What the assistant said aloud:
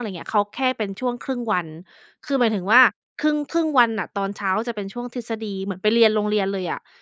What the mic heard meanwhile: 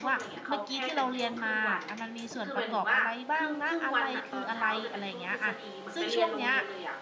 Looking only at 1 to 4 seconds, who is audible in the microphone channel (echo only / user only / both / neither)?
both